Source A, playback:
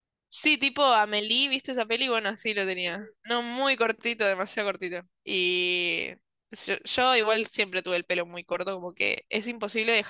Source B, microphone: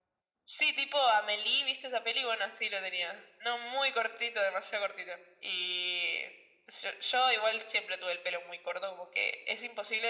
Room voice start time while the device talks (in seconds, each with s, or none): none